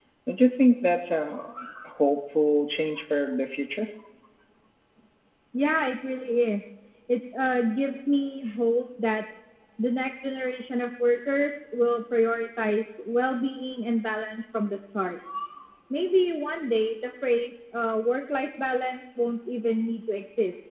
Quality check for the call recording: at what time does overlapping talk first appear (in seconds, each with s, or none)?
none